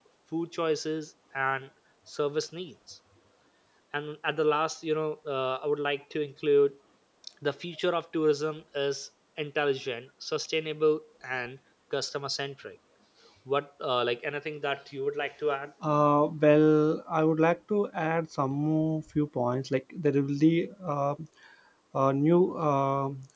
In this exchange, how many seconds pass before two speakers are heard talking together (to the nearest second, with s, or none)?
none